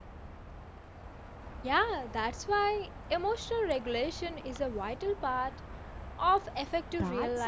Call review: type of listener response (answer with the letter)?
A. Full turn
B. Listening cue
A